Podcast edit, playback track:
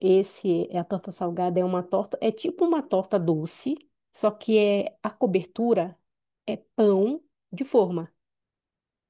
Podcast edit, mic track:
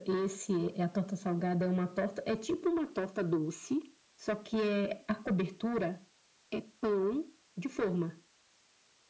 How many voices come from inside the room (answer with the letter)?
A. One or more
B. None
B